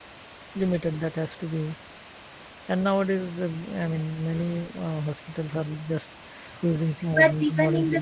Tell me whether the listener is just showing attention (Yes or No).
No